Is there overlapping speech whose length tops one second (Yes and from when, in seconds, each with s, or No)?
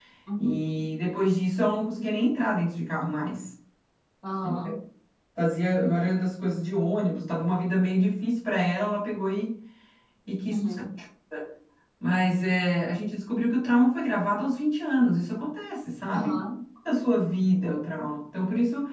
No